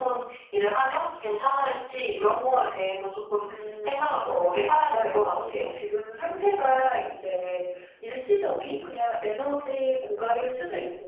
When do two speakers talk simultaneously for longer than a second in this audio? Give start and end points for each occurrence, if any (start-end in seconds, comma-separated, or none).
4.2-5.7